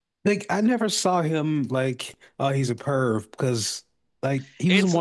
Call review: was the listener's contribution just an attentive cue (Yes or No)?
Yes